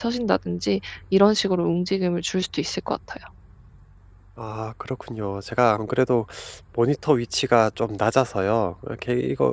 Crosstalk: none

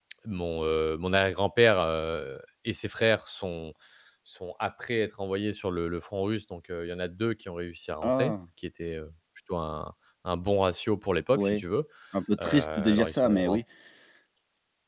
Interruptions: present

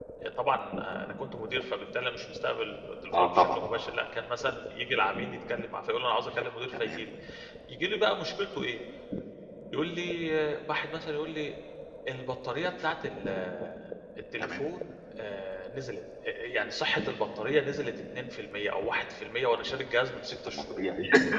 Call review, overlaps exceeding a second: none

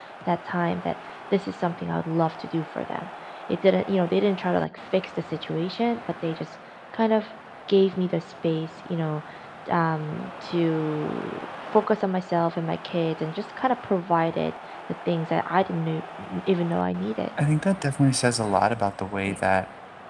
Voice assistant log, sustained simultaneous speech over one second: none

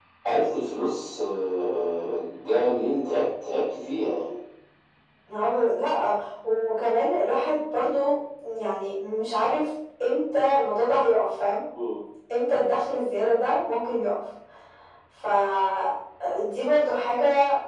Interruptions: none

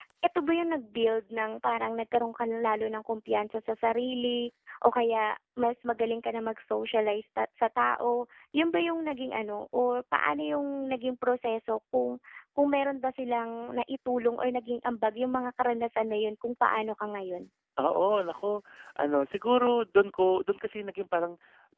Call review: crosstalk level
none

